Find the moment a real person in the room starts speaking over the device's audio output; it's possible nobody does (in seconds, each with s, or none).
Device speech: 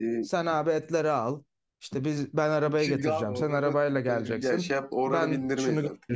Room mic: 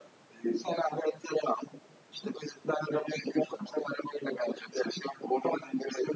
none